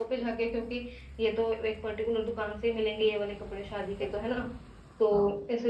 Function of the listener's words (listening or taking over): listening